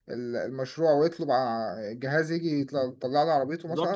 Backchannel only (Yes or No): No